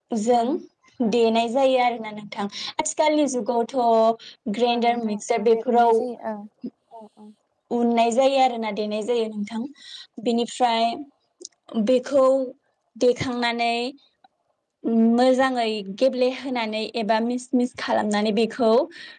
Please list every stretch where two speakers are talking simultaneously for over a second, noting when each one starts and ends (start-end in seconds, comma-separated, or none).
4.7-5.9